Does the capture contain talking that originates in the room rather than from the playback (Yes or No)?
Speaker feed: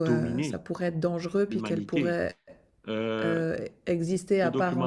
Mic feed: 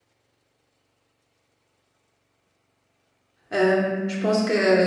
Yes